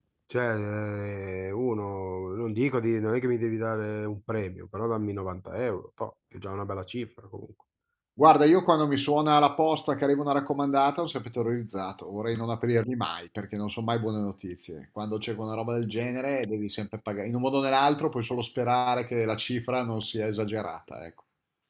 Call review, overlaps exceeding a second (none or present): none